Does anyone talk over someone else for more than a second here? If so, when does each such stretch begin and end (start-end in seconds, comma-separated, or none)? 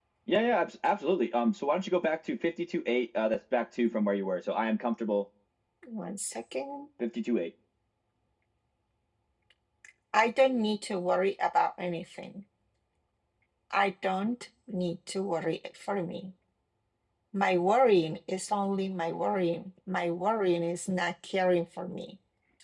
none